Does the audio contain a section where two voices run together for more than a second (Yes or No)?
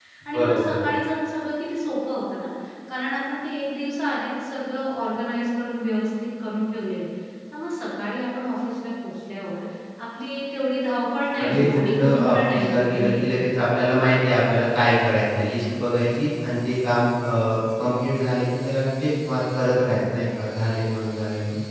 Yes